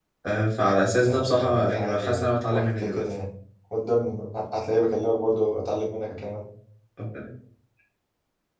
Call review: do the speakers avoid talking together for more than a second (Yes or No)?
No